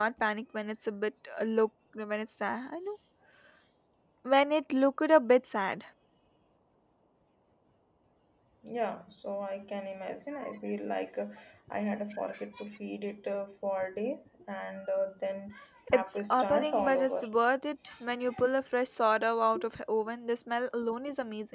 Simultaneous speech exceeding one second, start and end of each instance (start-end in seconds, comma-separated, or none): 15.9-17.3